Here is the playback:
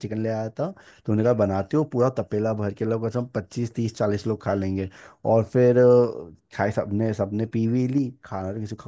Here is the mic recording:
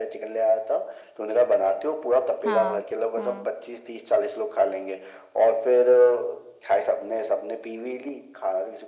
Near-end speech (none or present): present